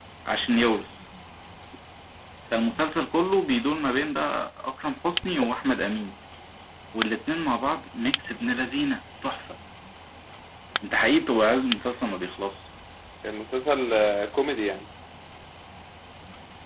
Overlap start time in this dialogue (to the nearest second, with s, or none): none